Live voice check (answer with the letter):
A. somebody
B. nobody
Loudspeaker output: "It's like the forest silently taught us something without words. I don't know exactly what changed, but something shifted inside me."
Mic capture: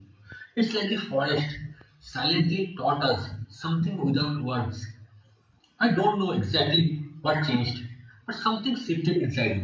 B